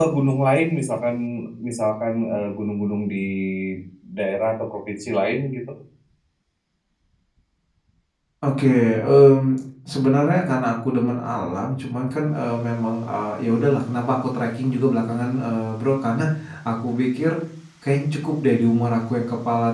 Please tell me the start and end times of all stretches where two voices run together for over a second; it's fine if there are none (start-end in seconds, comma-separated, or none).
none